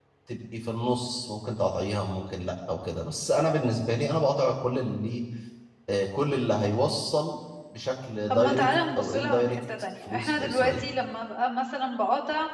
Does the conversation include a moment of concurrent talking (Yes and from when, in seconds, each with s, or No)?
Yes, from 8.3 s